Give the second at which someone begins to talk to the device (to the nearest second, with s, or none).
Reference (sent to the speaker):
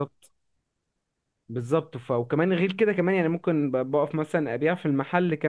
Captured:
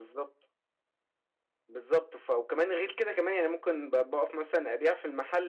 none